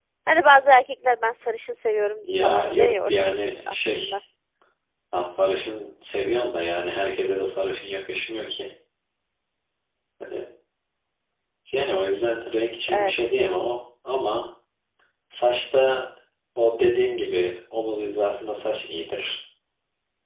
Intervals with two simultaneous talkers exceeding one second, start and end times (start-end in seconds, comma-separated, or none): 2.4-4.2